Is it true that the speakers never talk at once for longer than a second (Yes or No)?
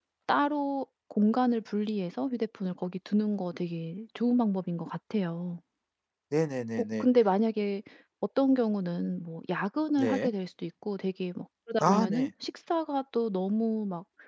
Yes